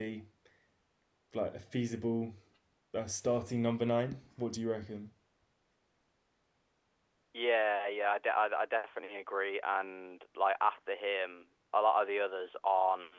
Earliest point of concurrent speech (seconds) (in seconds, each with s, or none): none